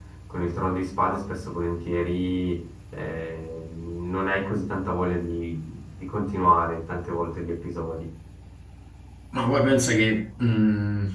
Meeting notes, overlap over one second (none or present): none